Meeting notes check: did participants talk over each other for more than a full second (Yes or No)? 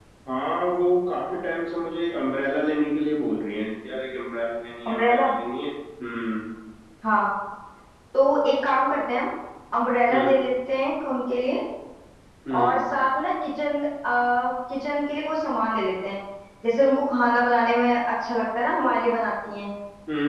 No